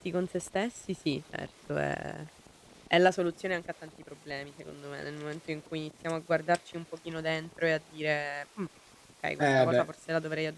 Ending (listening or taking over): listening